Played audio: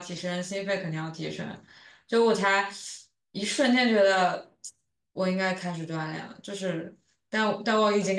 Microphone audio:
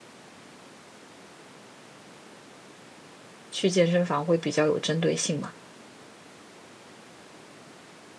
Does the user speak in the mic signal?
Yes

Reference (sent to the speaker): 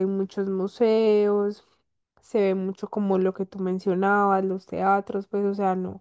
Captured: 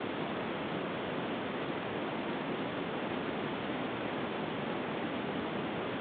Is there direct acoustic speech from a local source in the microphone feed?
No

